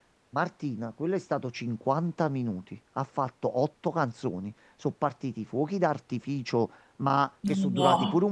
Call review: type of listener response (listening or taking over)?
listening